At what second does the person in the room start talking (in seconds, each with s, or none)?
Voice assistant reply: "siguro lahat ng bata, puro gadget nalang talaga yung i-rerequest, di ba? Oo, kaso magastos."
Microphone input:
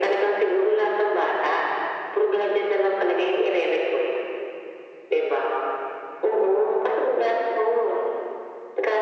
none